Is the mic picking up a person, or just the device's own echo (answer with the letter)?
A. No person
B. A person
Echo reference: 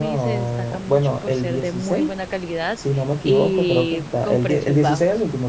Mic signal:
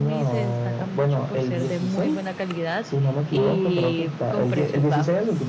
A